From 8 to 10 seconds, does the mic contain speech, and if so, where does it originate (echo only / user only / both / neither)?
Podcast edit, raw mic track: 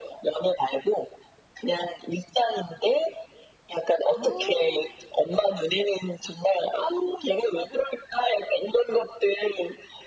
echo only